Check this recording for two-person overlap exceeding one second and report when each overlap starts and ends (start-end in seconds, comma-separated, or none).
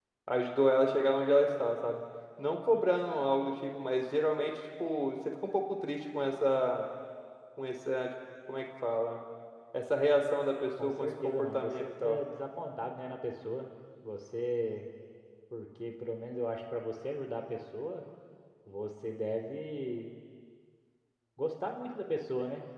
10.8-12.2